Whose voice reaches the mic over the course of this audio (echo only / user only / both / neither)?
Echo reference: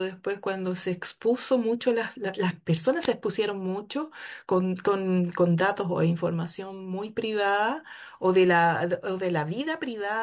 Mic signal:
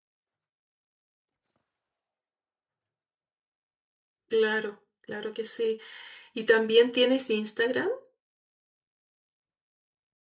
user only